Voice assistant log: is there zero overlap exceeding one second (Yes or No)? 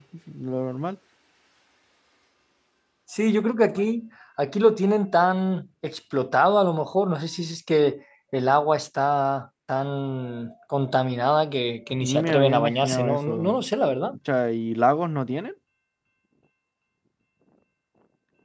No